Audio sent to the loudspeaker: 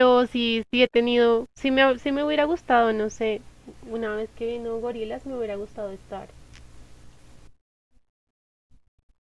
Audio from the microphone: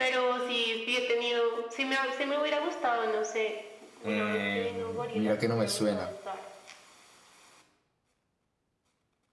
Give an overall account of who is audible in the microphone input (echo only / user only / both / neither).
both